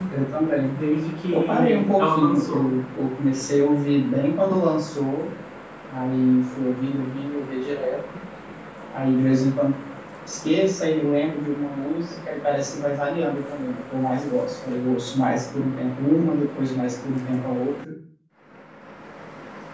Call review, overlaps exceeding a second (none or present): present